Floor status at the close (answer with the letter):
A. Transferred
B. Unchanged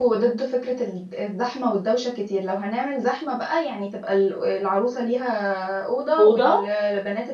B